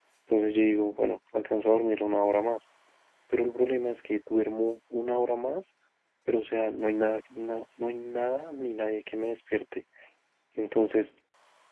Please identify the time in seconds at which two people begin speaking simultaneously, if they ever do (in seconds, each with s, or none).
none